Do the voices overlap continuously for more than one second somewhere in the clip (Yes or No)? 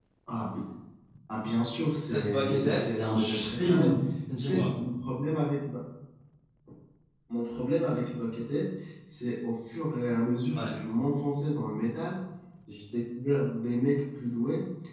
Yes